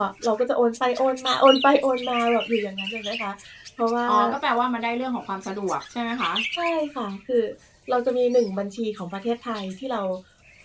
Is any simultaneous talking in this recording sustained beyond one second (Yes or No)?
No